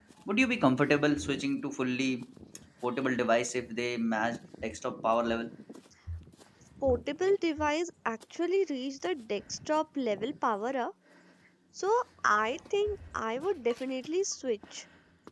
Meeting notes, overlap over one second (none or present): none